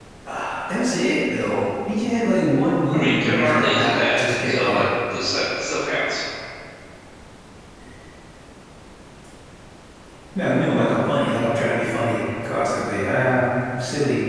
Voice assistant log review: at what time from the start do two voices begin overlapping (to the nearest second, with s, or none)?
3 s